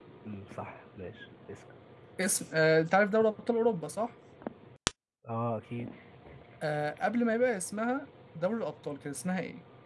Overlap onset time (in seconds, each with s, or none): none